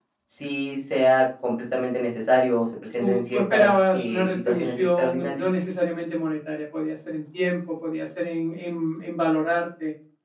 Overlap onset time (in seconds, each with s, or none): 3.0 s